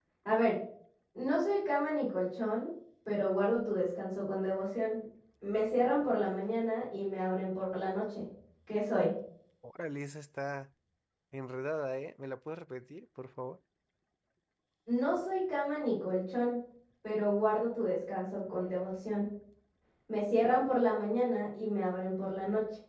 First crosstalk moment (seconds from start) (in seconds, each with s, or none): none